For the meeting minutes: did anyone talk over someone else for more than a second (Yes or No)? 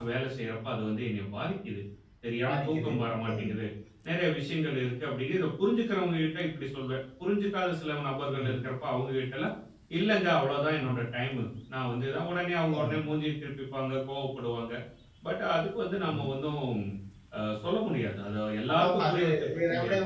Yes